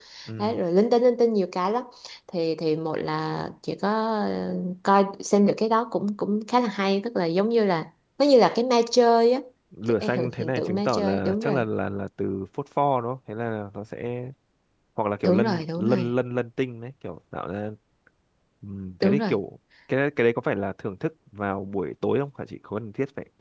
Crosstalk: present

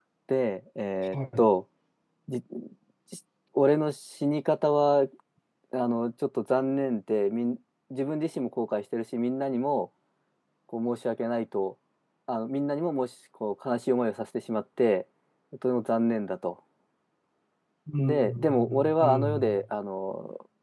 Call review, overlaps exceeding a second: present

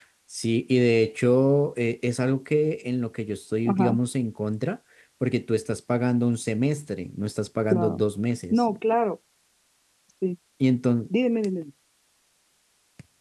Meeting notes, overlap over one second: none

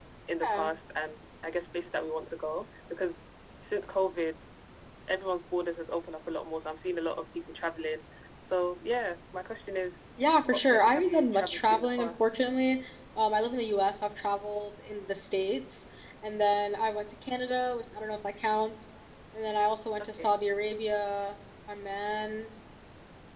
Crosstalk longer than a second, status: present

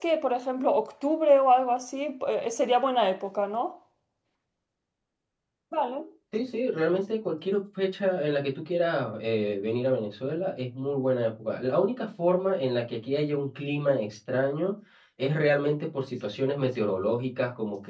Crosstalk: none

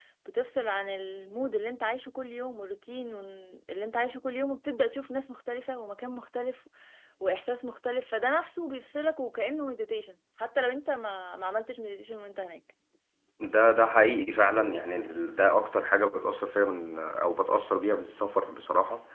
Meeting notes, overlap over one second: none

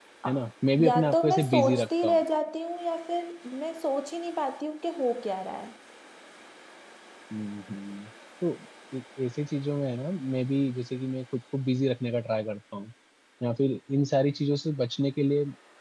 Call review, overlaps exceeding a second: present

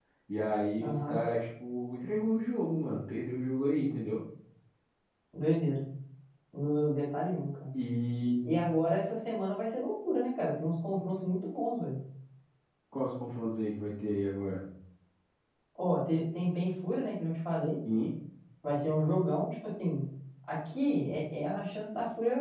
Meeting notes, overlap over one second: none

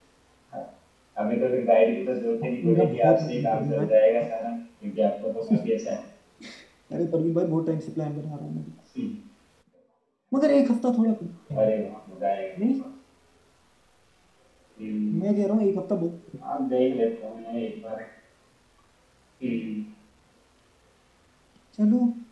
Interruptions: present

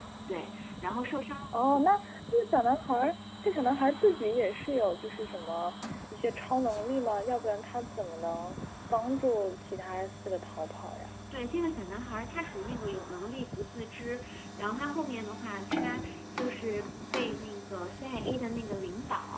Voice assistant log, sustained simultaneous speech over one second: none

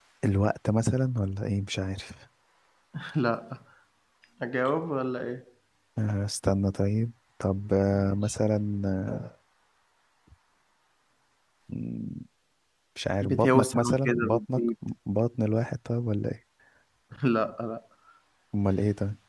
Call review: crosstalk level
present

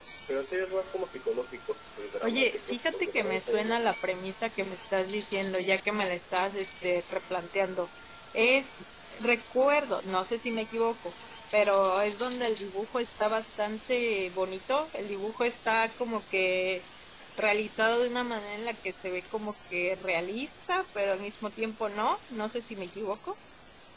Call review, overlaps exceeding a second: present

